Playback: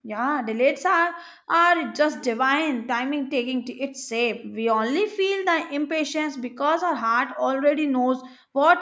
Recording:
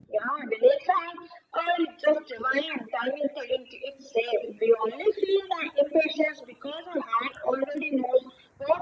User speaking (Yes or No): No